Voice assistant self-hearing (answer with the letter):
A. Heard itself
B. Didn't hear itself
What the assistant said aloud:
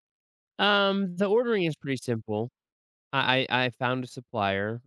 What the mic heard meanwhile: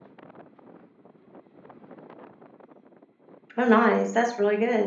B